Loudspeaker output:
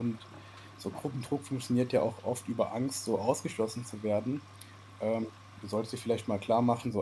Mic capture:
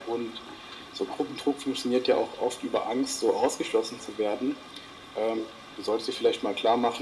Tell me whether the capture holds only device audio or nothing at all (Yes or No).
Yes